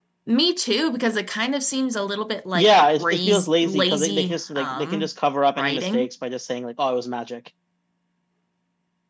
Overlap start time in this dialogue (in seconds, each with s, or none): 2.5 s